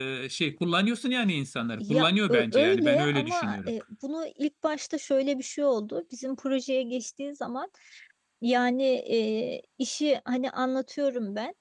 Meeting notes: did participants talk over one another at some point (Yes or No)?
Yes